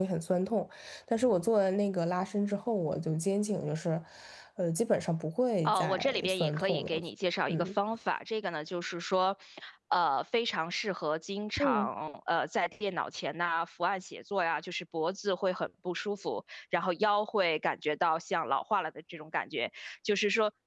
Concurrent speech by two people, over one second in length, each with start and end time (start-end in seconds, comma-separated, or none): 5.6-7.0